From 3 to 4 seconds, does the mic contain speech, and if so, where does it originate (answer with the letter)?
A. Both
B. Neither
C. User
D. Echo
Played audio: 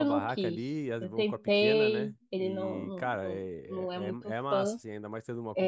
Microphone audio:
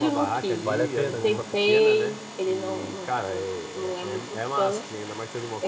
D